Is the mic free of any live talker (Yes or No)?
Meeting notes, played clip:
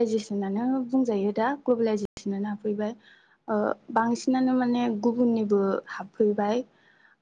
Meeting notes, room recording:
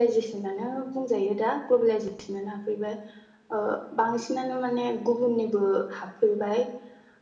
Yes